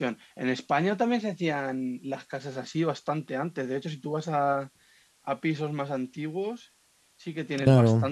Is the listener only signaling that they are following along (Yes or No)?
Yes